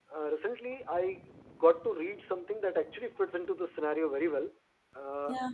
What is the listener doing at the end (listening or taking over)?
listening